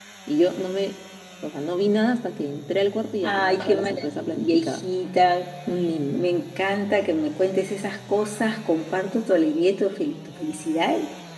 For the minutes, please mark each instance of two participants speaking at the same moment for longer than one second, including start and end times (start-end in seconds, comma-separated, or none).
3.2-4.8